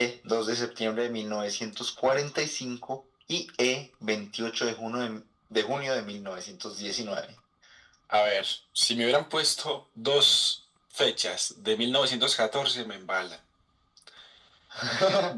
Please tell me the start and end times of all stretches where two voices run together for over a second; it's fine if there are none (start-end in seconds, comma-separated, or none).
none